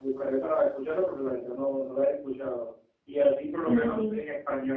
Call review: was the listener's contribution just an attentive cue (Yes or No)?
Yes